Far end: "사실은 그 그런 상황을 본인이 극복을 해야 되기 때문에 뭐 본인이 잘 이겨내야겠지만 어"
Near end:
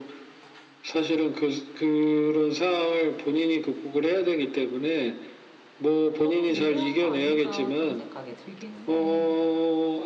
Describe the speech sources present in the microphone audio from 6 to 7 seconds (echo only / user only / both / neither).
both